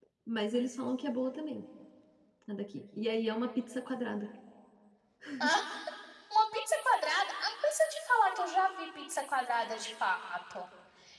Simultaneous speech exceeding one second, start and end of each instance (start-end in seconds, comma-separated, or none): none